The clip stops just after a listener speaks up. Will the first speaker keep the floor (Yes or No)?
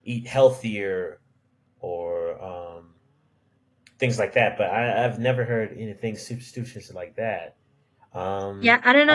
No